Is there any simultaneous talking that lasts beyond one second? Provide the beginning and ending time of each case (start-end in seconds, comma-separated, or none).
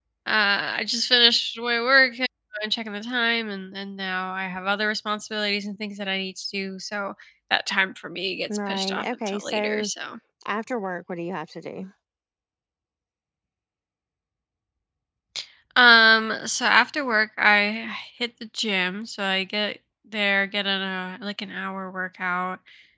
8.7-9.9